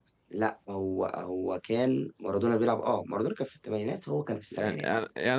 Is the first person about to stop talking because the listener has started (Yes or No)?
Yes